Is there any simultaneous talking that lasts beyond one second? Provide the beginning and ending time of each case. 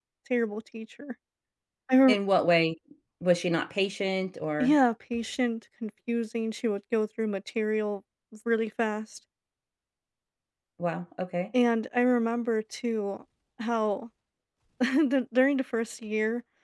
none

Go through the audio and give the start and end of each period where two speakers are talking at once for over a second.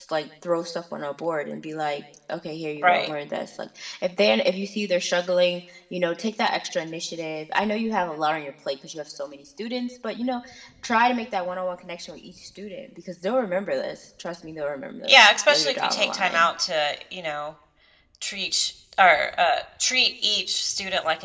15.0-16.5

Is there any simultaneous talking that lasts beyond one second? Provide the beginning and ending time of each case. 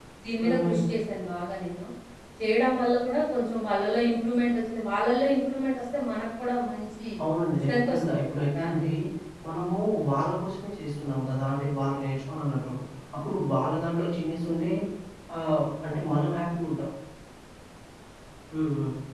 7.7-8.9

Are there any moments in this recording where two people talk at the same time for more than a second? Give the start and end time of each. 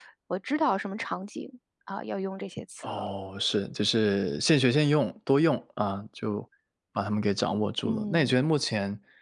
none

